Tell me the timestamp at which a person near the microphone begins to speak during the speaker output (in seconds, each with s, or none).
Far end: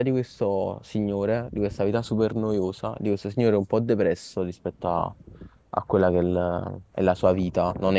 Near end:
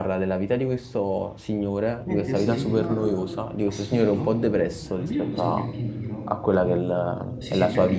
2.0 s